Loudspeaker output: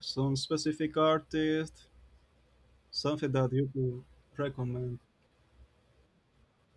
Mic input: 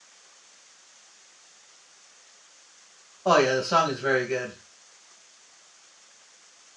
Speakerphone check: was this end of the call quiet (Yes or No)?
No